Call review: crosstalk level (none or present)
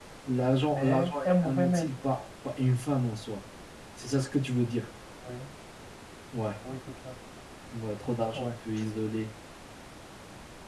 present